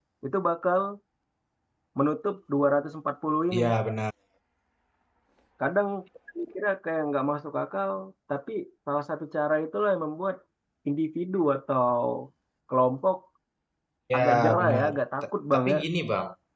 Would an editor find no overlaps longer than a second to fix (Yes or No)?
No